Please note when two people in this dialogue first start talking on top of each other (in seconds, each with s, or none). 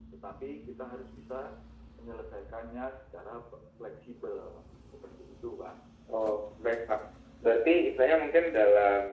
none